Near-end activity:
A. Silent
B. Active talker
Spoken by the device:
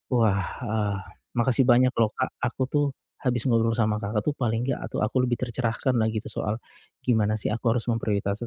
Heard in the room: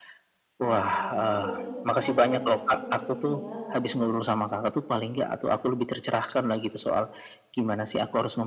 B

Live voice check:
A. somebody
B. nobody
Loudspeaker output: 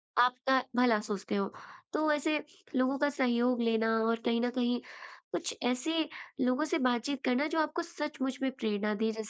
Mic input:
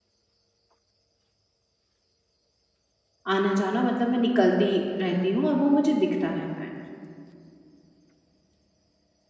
A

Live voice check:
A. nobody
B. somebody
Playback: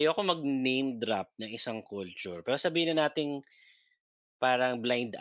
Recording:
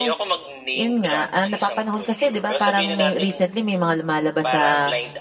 B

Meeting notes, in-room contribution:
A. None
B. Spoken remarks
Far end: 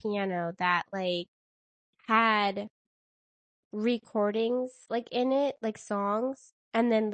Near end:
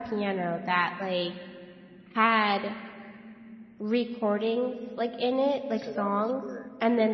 B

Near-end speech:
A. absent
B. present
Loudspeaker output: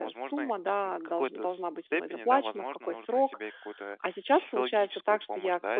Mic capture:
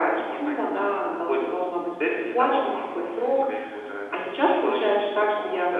A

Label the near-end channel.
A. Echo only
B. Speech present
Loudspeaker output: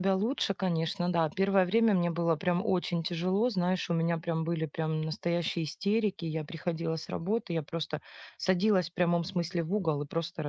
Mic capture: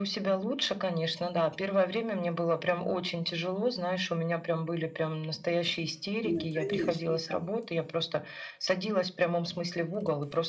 B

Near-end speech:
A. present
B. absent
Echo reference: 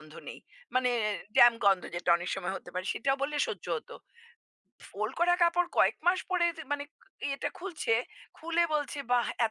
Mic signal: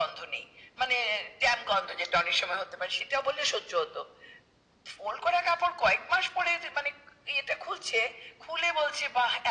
B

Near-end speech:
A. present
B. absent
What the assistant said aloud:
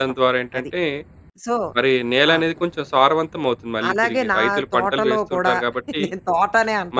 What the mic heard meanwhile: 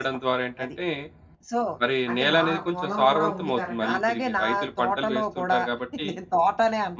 A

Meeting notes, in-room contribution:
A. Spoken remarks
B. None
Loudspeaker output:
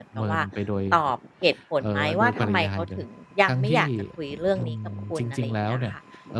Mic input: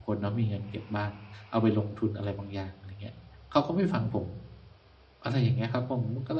A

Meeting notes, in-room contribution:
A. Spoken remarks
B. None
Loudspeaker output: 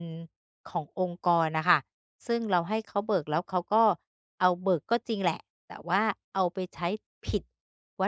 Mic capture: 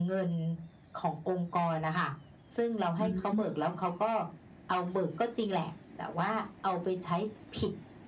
A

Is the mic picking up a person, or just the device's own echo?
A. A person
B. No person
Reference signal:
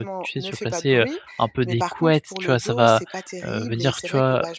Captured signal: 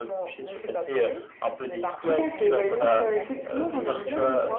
A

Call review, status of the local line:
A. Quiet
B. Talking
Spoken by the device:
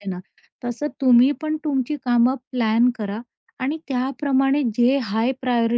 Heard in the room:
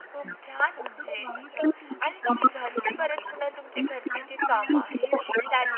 B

